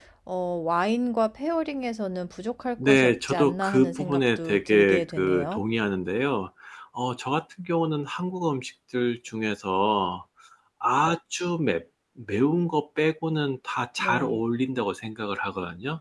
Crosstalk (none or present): present